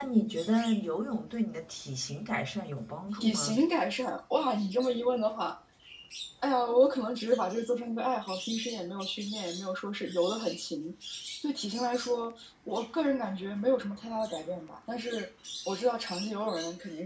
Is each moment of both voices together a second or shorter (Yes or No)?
Yes